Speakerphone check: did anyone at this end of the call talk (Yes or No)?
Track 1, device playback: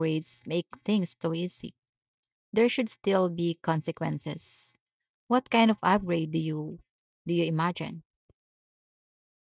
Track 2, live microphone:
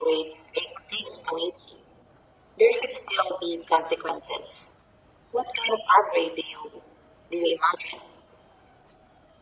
No